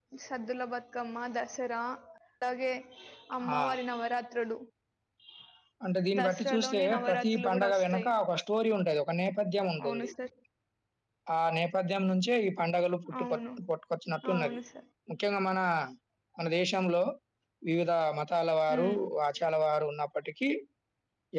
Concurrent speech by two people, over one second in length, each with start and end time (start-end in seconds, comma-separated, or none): 6.2-8.1